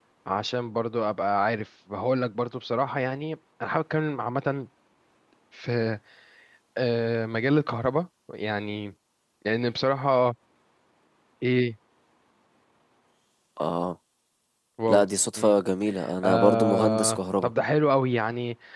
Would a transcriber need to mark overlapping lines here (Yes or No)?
Yes